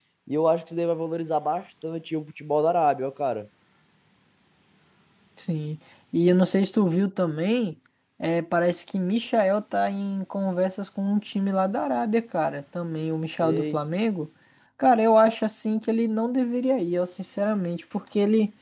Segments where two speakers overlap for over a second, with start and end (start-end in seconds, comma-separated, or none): none